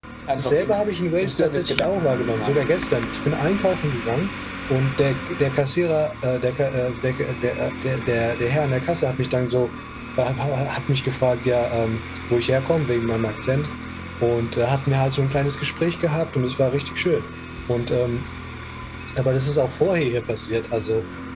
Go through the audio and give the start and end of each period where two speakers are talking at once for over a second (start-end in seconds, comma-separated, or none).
1.2-2.6